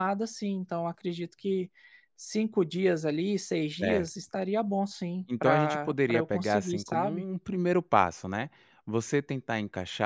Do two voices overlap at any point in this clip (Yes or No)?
Yes